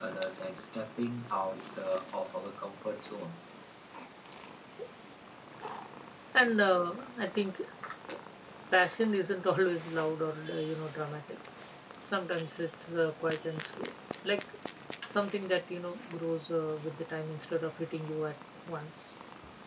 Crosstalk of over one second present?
No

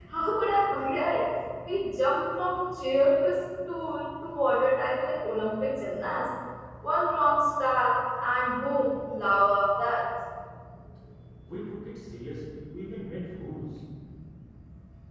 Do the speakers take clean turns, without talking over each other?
Yes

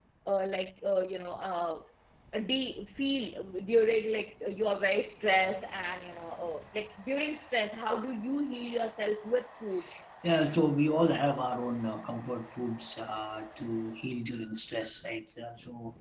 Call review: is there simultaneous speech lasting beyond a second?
No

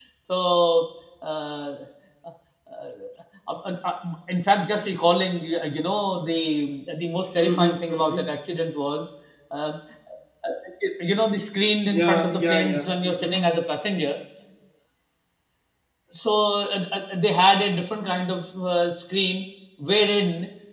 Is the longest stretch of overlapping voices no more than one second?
No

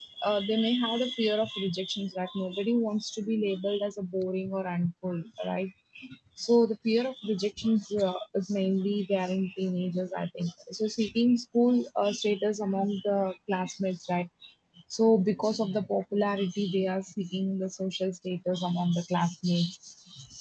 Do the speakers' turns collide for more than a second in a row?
No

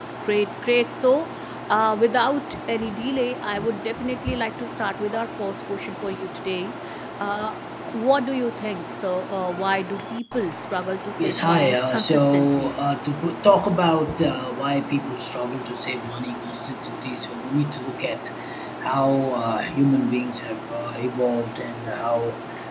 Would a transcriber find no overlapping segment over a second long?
No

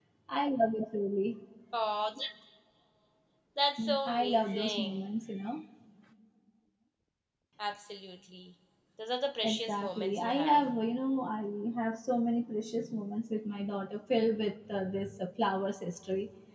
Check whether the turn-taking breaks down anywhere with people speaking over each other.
Yes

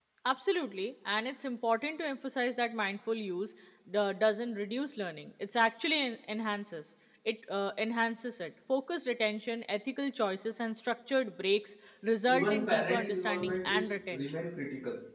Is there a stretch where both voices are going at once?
Yes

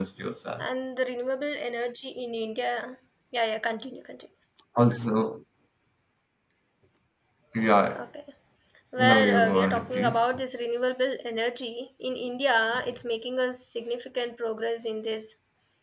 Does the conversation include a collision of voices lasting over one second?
Yes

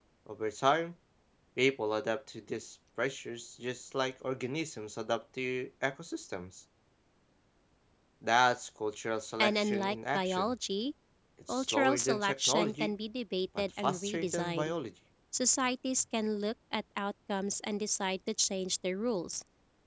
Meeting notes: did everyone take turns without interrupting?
No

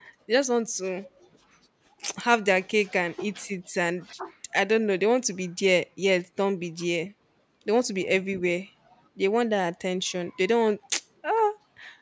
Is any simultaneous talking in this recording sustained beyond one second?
No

